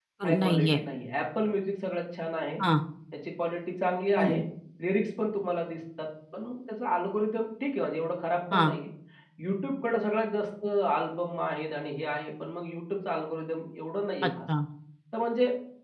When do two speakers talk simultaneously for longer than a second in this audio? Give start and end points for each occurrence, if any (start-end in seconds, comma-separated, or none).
none